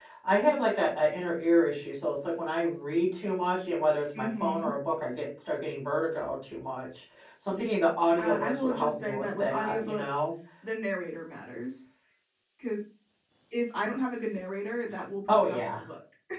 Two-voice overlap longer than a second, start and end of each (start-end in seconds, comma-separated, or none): 8.2-10.2